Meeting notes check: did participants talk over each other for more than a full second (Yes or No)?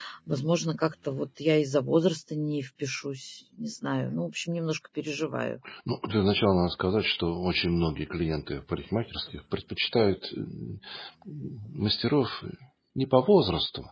No